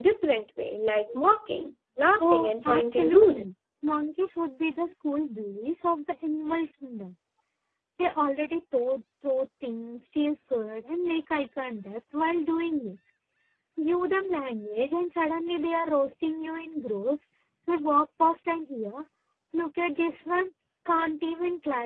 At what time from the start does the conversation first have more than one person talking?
2.2 s

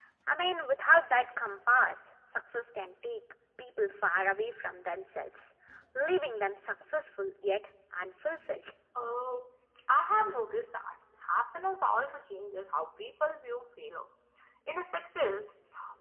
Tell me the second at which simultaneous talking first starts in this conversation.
none

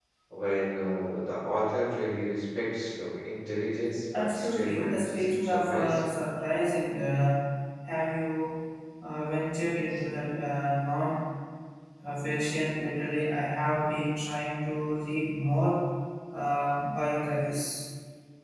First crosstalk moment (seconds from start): 4.1 s

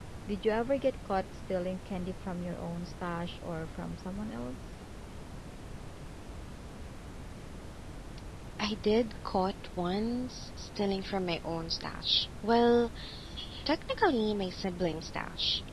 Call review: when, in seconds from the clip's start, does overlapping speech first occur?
none

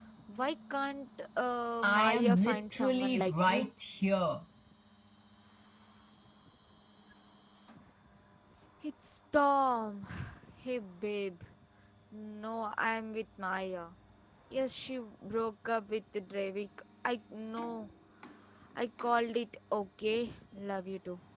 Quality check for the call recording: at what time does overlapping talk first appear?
1.8 s

